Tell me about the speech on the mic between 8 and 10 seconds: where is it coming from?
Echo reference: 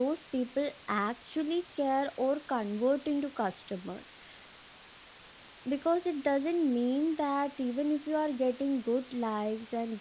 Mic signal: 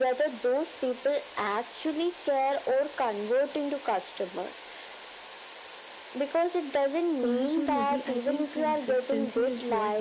both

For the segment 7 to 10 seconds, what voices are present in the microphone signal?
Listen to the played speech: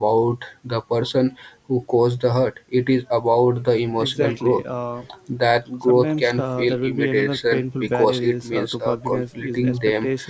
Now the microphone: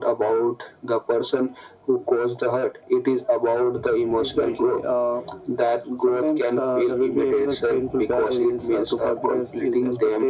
echo only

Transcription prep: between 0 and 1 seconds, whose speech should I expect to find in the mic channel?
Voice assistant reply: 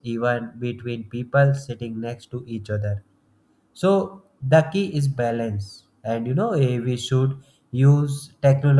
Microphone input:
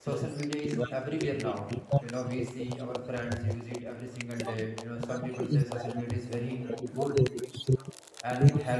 both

